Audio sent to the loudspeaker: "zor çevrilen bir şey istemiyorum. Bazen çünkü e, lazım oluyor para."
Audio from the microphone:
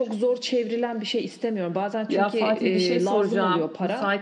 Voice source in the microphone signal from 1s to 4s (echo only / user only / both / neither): both